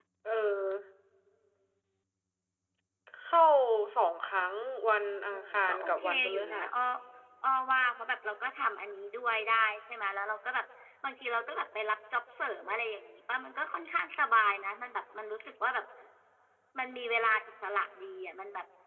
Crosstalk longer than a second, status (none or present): present